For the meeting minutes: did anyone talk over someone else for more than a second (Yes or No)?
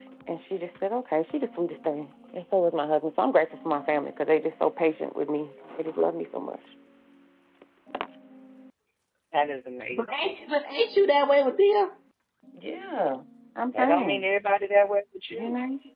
No